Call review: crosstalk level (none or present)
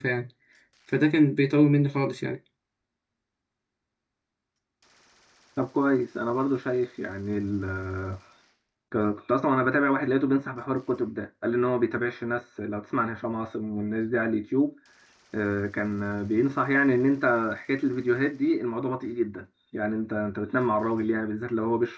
none